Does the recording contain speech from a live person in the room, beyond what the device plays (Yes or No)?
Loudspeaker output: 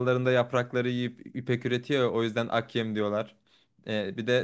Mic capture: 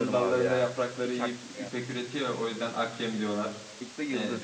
Yes